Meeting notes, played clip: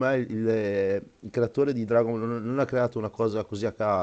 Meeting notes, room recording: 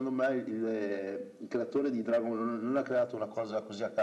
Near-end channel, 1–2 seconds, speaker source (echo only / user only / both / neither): echo only